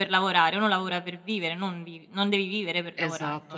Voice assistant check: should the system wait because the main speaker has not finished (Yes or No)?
No